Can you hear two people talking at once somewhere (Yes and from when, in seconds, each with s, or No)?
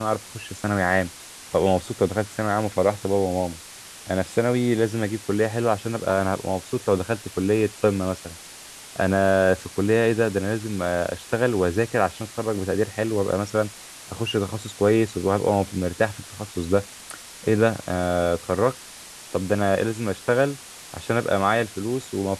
No